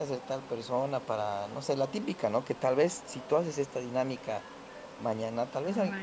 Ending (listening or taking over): listening